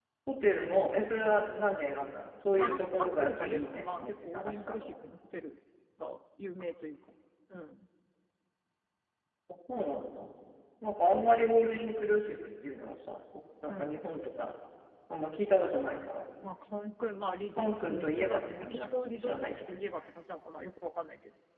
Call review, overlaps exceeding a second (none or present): present